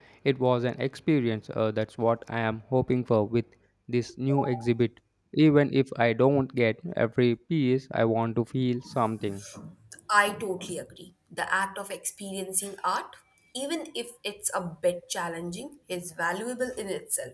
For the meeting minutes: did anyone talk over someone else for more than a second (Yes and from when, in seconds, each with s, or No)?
No